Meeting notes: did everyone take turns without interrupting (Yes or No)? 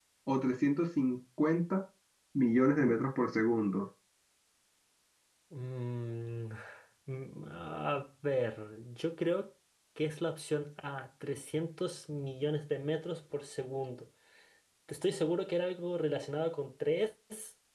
Yes